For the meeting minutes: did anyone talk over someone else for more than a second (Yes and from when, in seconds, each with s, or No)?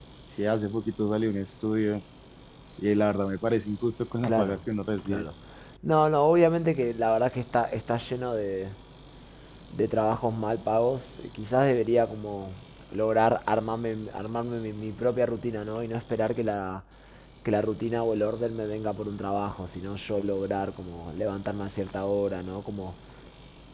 No